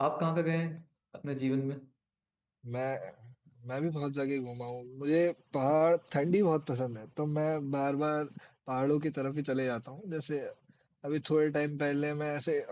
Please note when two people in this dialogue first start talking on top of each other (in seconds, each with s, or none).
none